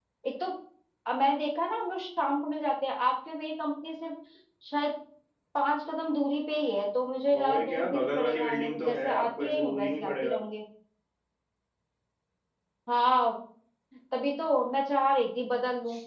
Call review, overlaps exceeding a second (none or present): present